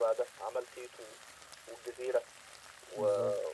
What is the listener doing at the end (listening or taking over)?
listening